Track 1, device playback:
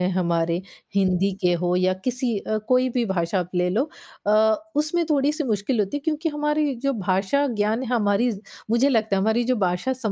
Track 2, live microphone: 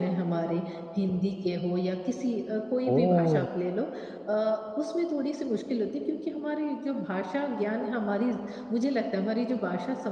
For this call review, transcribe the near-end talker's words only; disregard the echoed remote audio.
ओह!

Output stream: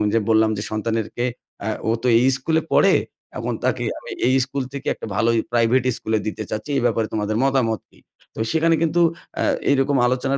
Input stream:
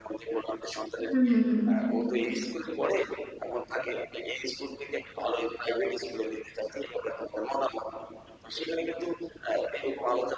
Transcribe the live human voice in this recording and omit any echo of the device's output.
উম হুম, হুম।

